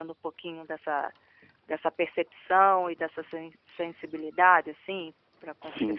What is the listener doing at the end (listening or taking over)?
taking over